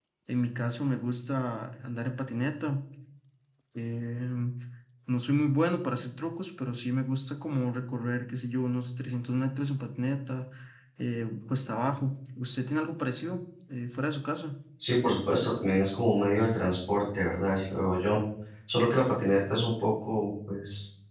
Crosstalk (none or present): none